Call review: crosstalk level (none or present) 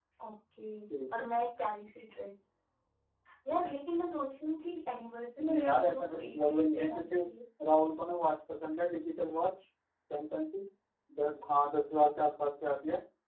present